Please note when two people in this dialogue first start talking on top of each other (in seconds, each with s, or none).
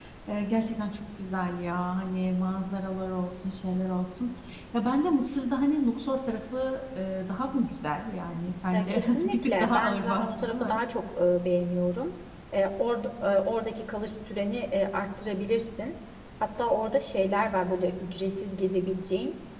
8.7 s